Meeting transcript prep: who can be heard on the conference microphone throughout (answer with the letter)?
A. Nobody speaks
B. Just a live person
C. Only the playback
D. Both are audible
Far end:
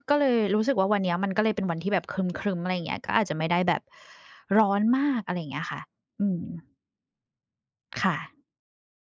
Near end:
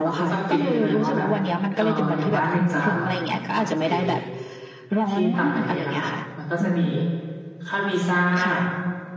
D